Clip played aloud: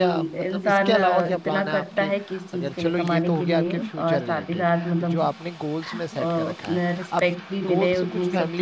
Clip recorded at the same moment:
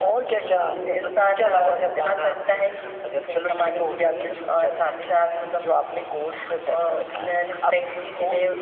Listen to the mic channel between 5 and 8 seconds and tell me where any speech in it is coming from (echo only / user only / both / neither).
echo only